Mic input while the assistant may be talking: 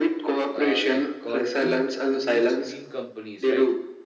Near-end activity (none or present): present